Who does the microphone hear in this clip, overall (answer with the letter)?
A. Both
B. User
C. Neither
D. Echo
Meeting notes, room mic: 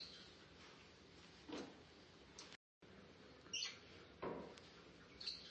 C